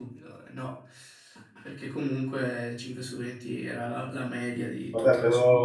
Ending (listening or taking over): taking over